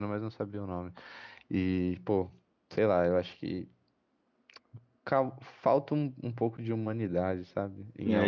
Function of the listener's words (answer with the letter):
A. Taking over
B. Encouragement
A